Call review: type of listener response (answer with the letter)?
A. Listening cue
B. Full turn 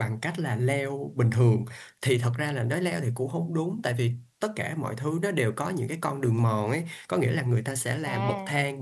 A